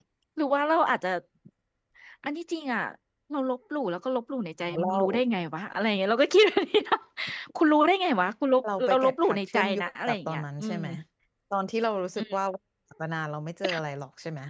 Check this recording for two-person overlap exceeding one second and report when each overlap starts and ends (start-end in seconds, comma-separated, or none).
8.8-10.8